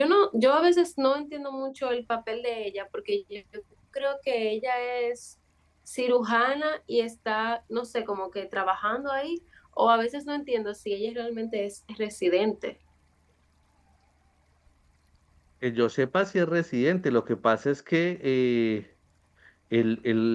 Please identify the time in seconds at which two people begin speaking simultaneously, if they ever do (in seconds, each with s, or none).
none